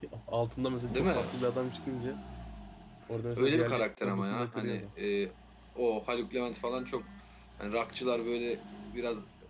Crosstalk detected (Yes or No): Yes